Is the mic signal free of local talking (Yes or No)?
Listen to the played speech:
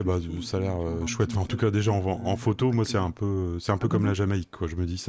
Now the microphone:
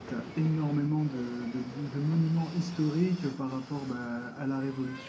No